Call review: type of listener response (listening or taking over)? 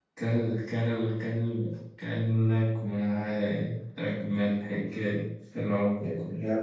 taking over